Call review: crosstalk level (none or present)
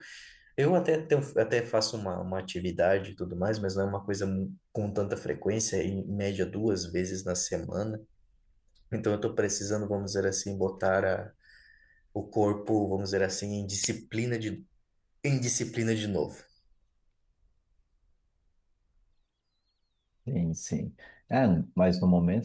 none